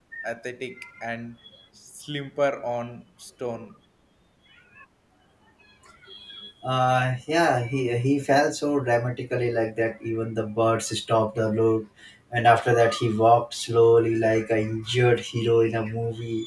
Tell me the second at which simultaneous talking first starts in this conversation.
none

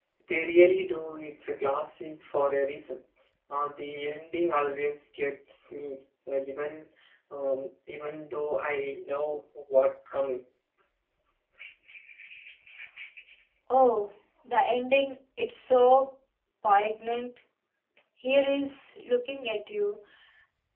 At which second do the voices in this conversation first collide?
none

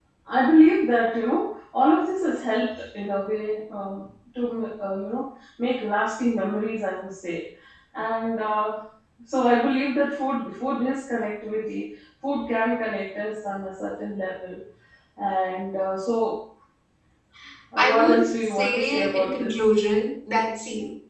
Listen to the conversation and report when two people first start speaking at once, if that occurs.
17.8 s

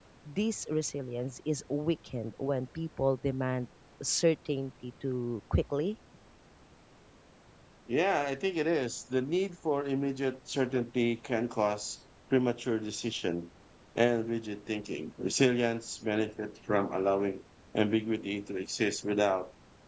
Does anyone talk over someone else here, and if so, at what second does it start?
none

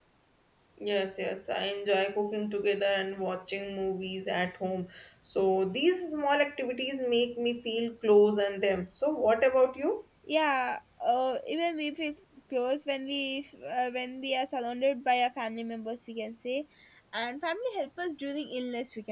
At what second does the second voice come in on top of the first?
none

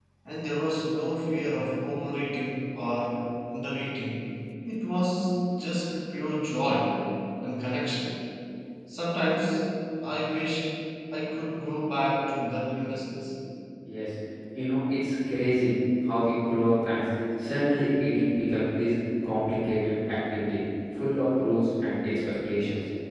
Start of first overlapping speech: none

